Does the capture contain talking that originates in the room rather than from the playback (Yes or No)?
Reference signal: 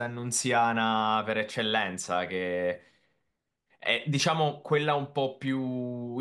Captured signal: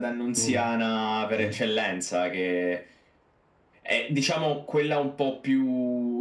Yes